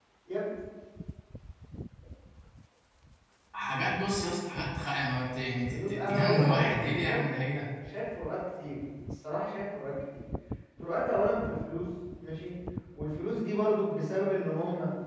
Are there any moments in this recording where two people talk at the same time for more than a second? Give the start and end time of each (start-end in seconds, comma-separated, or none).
5.7-7.2